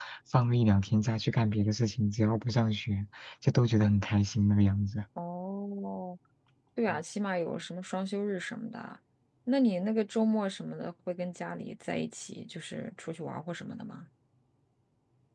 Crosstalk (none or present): none